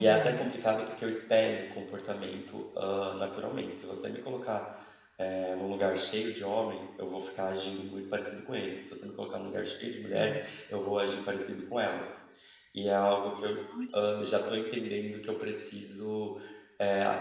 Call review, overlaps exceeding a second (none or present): none